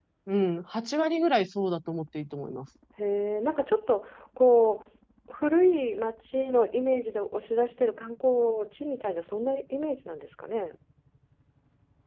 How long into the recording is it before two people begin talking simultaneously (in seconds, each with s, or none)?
none